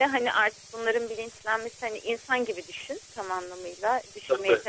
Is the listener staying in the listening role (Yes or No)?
Yes